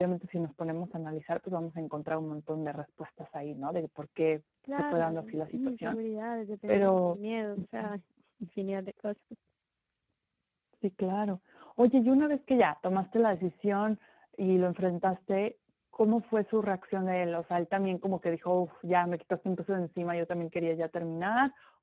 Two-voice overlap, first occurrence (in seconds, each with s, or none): 4.7 s